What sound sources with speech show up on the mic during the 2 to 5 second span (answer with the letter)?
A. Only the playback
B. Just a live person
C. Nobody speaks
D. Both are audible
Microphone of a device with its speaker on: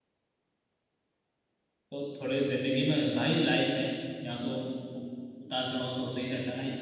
B